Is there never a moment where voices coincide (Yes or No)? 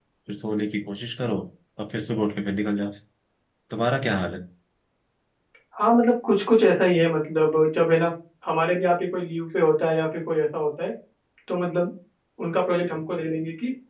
Yes